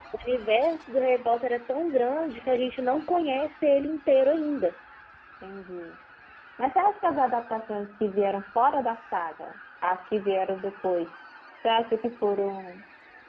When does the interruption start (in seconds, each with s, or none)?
none